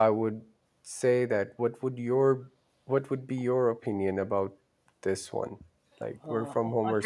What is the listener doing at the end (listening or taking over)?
taking over